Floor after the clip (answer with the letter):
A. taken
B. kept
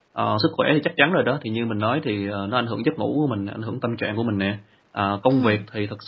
B